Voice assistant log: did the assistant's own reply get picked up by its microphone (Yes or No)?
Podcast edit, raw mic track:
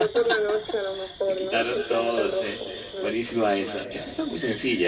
Yes